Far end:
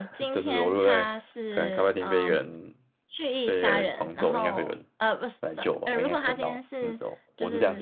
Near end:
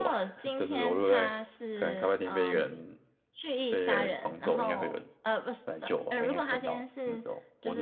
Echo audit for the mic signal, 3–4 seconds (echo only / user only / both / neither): echo only